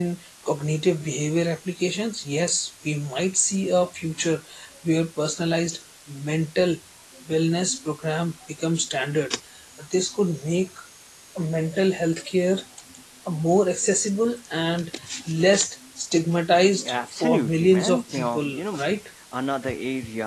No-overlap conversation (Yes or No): No